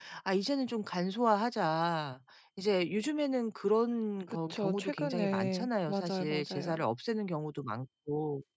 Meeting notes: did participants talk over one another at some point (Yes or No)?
Yes